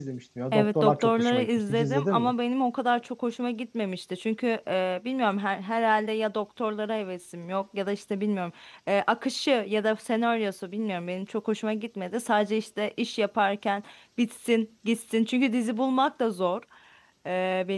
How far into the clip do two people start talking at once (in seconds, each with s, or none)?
0.5 s